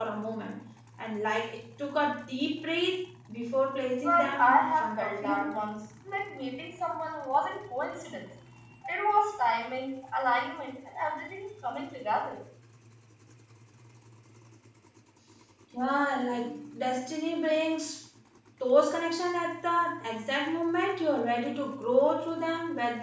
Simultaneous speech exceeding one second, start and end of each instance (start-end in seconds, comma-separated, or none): 4.0-5.5